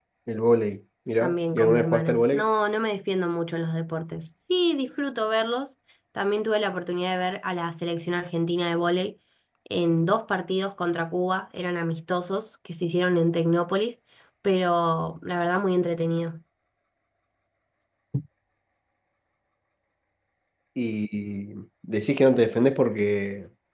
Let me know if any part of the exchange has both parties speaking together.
Yes, from 1.2 s

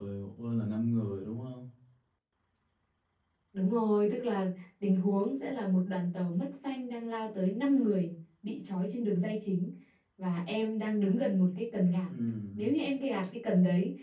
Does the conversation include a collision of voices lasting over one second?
No

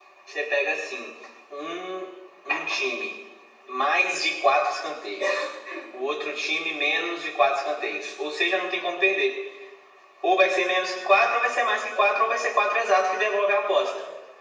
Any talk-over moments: No

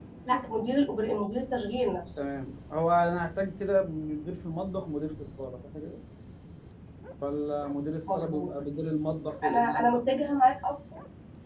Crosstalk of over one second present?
No

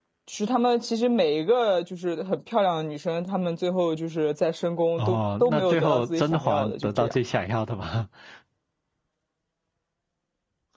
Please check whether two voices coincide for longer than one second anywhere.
Yes, from 5.0 s

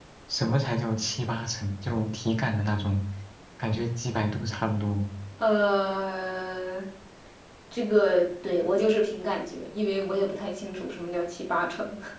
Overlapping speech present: No

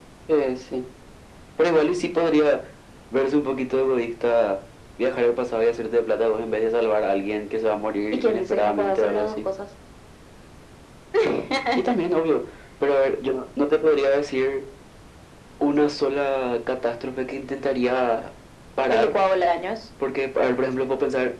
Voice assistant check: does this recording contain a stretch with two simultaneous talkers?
Yes, from 8.1 s

